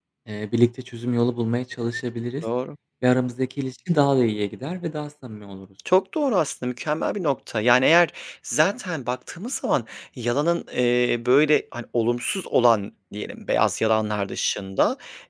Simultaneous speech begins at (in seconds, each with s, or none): none